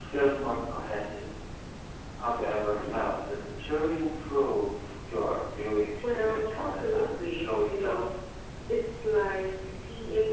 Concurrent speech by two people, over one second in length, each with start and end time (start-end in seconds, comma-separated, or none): 6.1-8.0